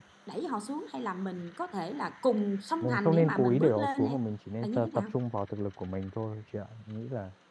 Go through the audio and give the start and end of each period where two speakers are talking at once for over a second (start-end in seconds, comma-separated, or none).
2.8-4.2